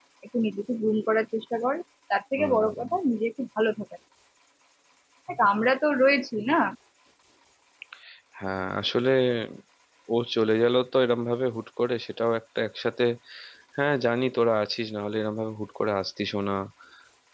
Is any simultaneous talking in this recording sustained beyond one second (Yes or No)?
No